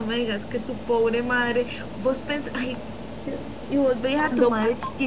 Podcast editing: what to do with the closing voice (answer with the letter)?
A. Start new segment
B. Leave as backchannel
B